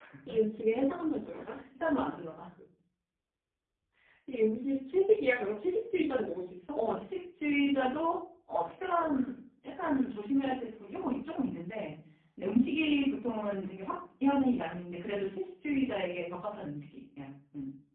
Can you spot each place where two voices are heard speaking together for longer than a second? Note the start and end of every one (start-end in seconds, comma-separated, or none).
none